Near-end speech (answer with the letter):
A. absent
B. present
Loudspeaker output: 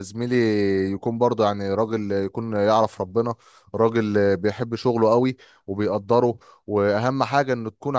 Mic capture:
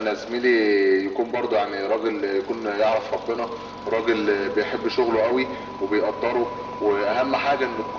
A